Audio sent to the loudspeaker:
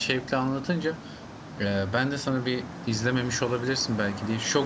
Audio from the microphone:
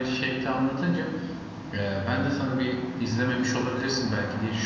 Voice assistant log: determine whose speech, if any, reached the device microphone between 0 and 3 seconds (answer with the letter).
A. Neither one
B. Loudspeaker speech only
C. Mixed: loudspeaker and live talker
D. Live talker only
B